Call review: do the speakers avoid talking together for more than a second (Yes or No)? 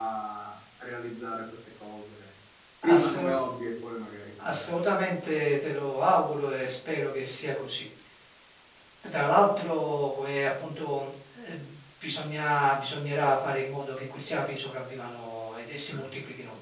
Yes